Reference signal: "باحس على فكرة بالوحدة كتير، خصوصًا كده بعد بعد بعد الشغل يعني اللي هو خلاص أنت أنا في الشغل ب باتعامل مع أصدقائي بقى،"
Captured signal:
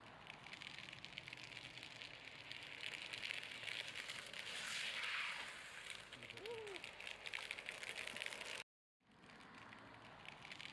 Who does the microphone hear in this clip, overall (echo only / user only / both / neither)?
neither